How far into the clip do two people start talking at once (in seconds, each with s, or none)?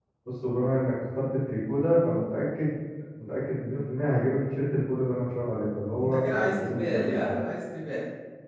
6.0 s